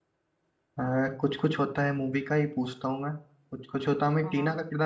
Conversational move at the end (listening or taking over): listening